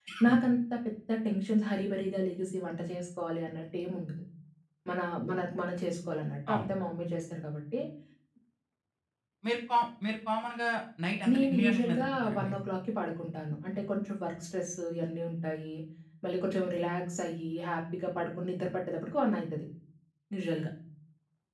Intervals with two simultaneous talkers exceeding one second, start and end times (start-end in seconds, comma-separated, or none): 11.3-12.5